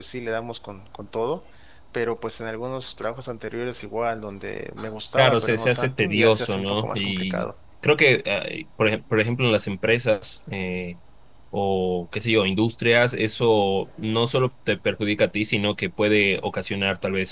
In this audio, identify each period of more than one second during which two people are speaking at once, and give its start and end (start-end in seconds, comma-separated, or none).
5.2-7.5